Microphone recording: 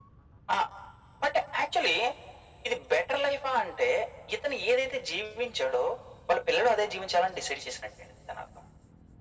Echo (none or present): present